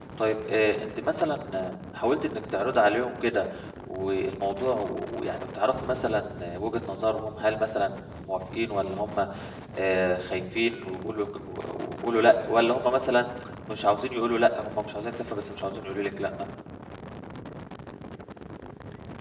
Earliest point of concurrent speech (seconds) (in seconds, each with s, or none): none